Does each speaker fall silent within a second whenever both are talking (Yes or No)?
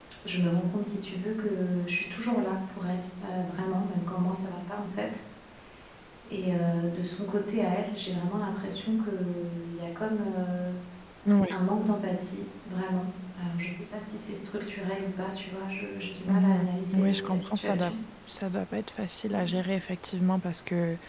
No